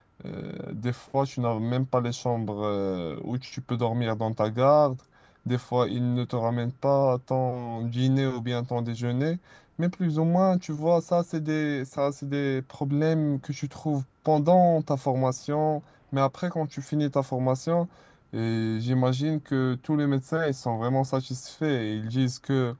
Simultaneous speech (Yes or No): No